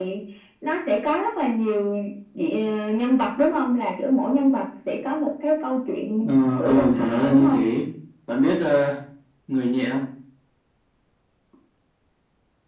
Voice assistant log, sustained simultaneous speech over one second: present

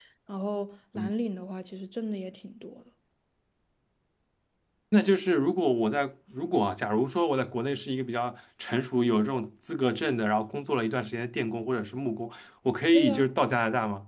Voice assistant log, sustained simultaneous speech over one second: none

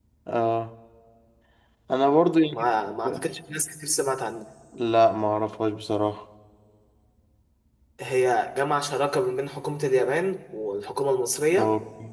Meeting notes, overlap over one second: none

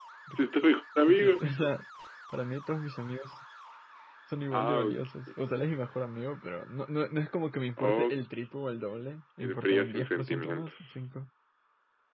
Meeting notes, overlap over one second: present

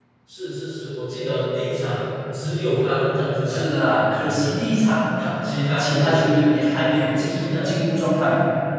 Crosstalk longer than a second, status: none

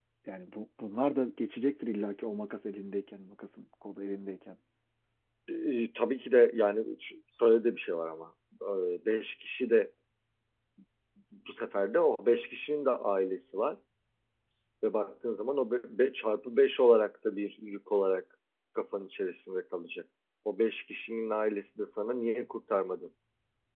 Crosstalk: none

